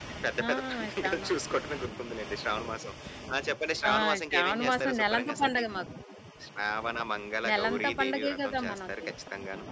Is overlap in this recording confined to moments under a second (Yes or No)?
No